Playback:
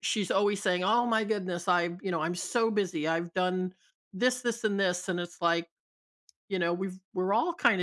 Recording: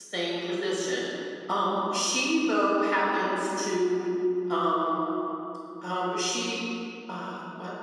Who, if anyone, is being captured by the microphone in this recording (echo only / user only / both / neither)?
user only